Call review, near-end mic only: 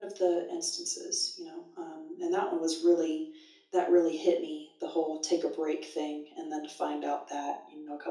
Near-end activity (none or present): none